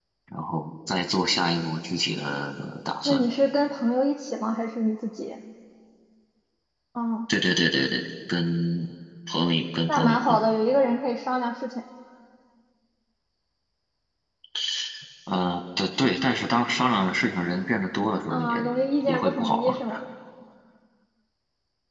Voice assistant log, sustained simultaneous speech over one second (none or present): present